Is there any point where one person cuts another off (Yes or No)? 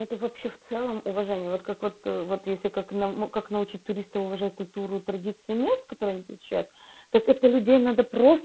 No